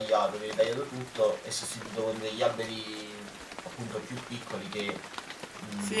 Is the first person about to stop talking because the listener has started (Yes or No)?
Yes